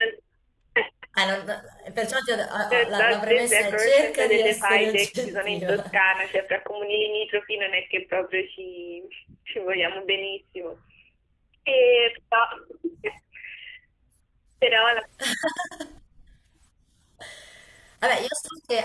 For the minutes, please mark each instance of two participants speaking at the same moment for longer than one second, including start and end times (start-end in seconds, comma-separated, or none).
2.8-5.7